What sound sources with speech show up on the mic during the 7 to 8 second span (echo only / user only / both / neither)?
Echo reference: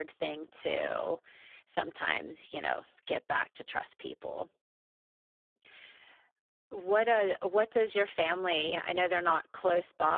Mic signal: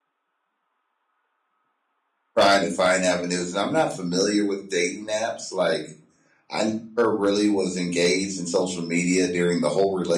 user only